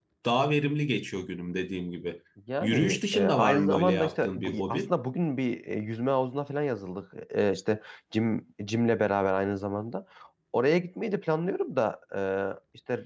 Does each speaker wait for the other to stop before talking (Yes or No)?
No